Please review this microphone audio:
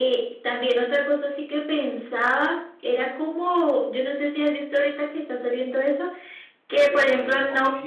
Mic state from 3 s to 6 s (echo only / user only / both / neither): echo only